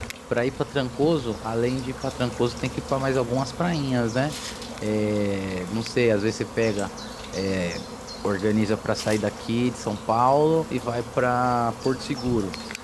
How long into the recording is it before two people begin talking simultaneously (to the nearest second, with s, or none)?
none